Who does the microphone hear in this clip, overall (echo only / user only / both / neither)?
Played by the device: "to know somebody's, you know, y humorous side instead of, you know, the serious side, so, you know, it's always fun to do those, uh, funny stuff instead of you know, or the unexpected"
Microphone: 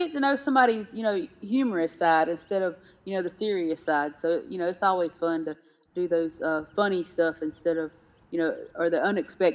echo only